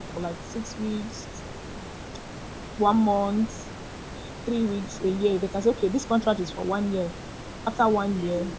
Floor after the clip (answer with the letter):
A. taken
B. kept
B